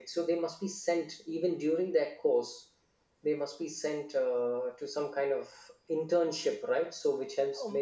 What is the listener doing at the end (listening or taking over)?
taking over